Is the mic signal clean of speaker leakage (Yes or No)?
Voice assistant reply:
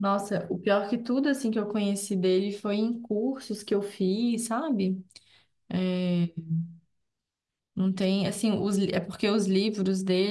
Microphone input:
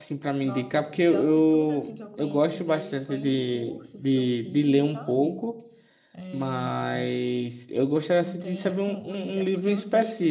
No